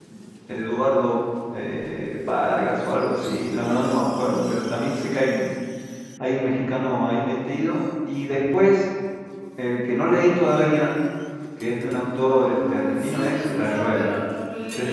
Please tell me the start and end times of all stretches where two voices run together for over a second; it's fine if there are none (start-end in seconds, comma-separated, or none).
12.3-14.2